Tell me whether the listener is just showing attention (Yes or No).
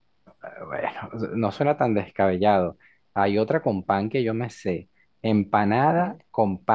Yes